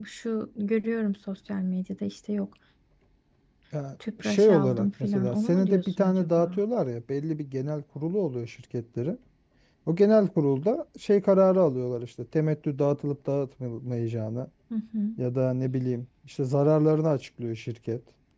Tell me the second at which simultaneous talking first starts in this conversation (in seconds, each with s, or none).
4.2 s